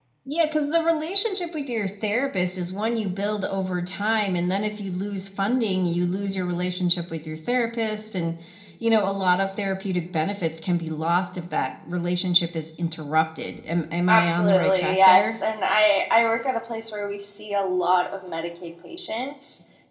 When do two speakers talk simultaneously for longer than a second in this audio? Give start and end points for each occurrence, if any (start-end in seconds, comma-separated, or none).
14.1-15.4